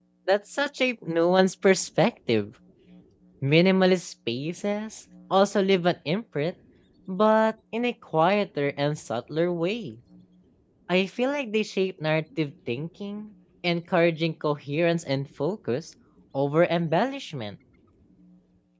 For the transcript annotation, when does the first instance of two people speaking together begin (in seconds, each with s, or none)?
none